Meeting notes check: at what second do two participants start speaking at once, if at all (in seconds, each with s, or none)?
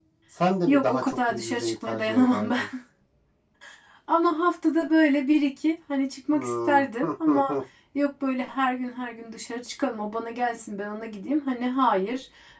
0.7 s